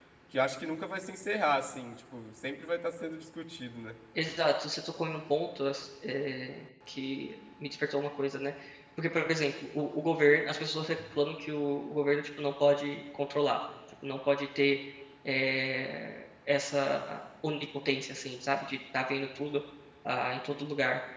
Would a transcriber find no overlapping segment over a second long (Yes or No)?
Yes